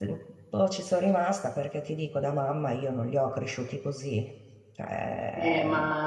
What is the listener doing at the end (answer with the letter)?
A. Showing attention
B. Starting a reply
B